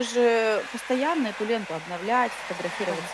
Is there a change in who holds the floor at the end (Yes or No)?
No